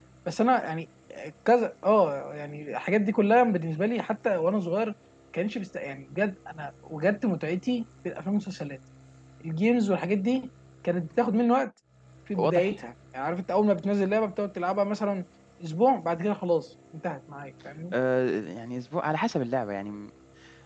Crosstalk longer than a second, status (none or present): none